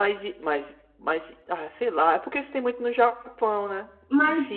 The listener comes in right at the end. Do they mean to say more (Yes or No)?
Yes